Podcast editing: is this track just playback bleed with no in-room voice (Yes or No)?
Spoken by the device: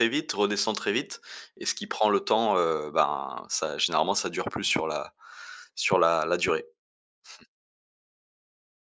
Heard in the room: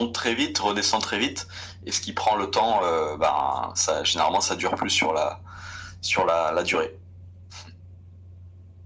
Yes